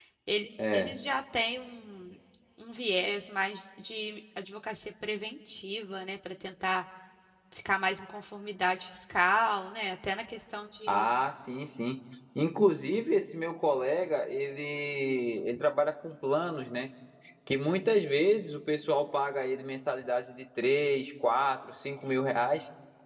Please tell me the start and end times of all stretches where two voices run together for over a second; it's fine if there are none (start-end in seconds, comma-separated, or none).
none